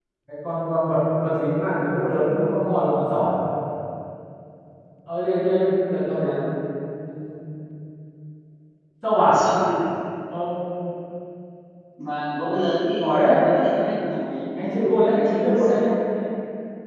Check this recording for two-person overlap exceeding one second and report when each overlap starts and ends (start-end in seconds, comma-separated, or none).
14.6-15.9